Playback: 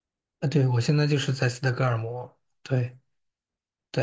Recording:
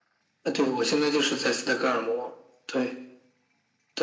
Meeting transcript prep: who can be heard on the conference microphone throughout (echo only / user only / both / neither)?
echo only